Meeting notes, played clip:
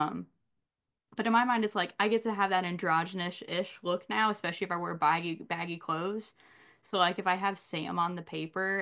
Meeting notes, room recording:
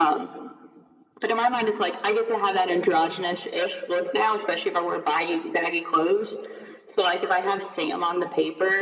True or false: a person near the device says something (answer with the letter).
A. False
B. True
A